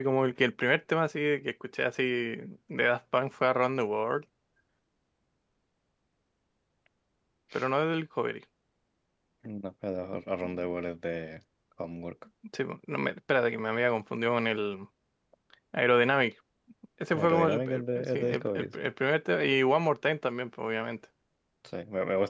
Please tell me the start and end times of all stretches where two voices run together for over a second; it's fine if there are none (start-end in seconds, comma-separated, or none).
17.2-18.7